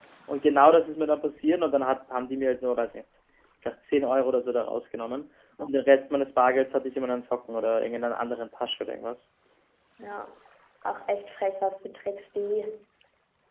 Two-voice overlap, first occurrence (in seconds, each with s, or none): none